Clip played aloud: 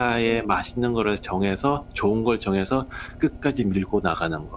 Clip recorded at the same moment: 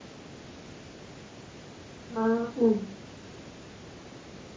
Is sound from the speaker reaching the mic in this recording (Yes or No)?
No